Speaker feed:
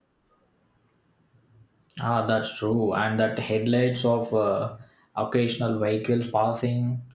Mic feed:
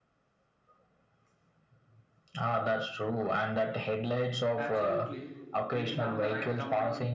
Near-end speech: present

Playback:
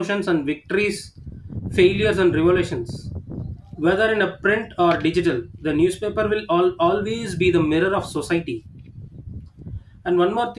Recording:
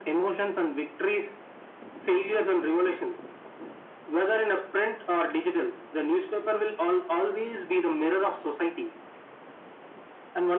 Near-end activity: none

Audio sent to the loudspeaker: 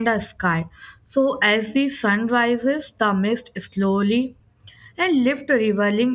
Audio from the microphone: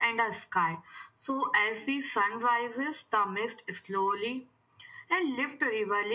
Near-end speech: none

